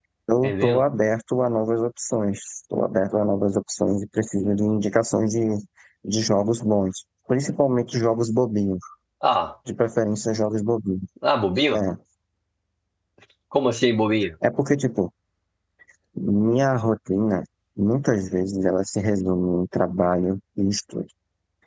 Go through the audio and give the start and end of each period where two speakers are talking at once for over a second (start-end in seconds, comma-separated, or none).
none